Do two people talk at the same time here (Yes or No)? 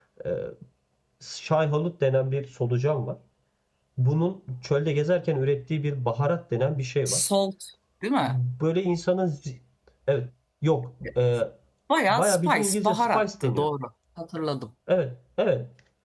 Yes